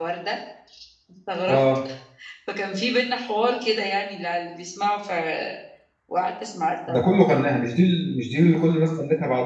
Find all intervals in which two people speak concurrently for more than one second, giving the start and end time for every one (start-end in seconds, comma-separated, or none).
none